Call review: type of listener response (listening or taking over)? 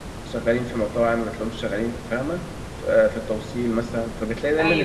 listening